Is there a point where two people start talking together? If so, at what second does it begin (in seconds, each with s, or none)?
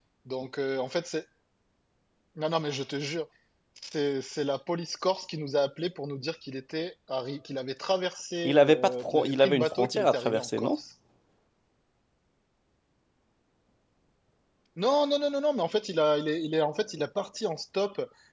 8.4 s